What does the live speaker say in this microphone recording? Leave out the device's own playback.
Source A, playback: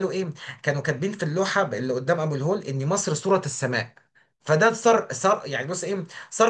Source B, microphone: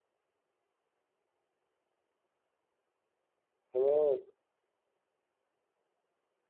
تمام

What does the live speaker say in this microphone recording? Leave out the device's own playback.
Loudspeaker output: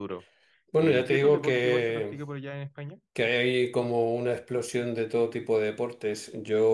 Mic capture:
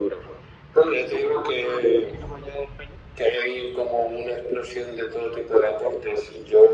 none

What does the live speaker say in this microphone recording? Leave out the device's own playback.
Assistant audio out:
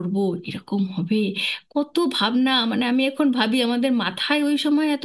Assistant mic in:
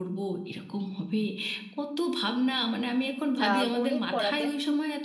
আহ, গণিত পড়াতেন

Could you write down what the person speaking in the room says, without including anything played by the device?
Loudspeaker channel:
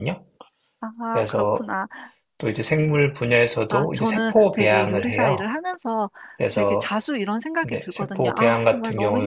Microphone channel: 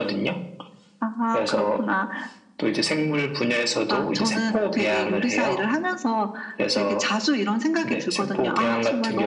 none

